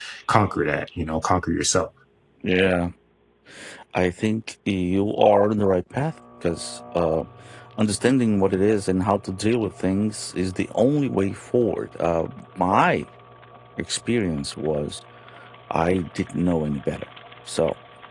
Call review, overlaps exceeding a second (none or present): none